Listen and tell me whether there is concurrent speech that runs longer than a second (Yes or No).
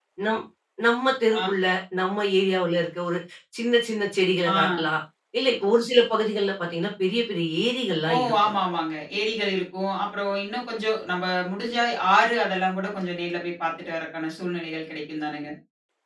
No